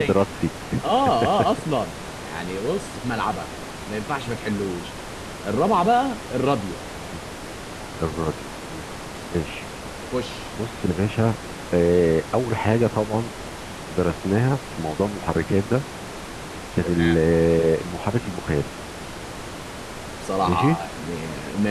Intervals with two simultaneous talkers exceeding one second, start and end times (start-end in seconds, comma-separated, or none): none